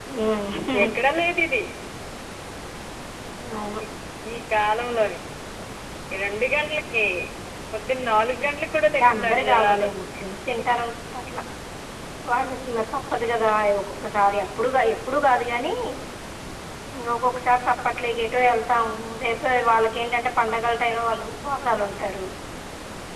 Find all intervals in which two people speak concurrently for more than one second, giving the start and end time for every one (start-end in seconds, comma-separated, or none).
8.5-9.9